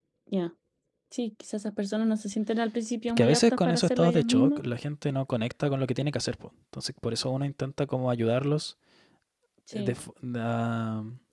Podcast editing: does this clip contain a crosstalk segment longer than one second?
Yes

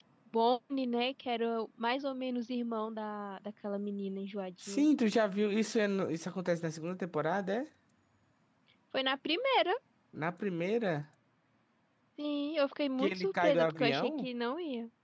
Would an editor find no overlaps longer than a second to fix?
No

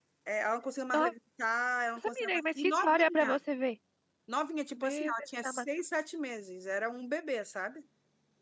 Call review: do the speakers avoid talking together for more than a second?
No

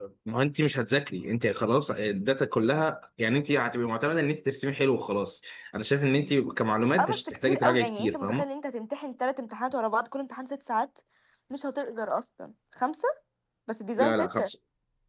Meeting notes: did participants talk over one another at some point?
Yes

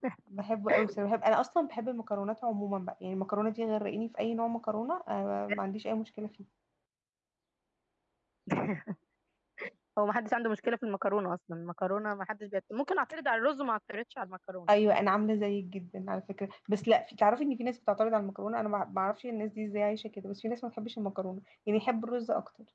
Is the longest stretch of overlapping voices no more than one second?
Yes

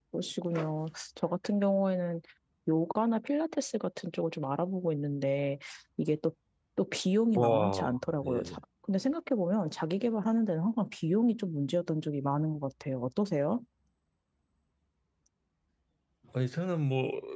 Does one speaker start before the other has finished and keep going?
Yes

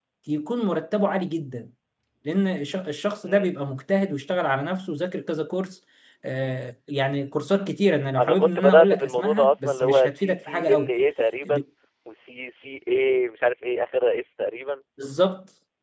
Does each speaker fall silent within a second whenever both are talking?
No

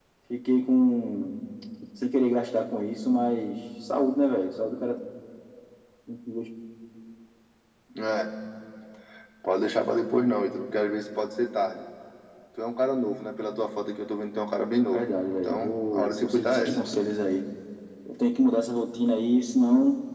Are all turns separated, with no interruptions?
No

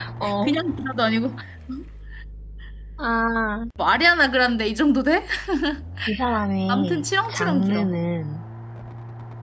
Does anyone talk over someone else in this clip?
Yes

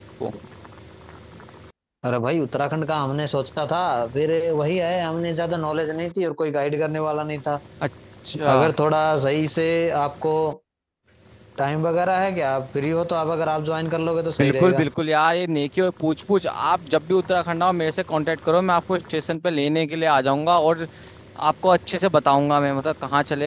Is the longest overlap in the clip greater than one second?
No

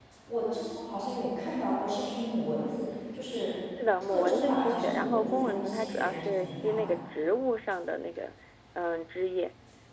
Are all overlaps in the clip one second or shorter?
No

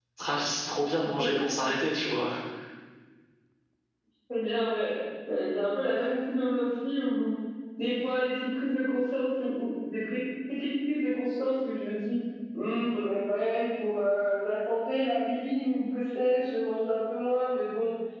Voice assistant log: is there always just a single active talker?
Yes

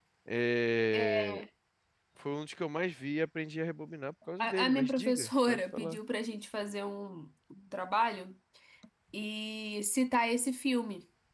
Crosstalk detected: Yes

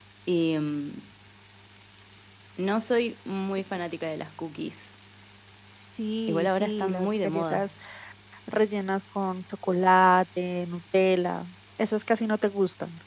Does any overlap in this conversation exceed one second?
Yes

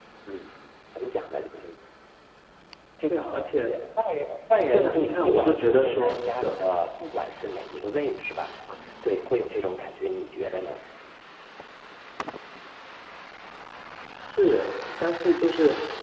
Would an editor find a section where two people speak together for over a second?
Yes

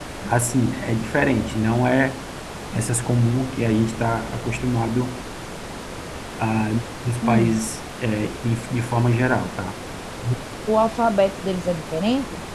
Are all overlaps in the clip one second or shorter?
Yes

